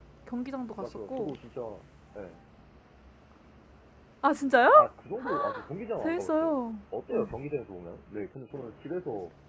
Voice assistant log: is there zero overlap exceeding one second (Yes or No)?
Yes